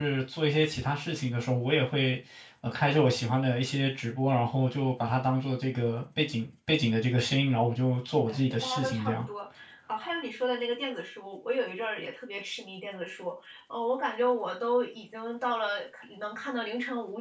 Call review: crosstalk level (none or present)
present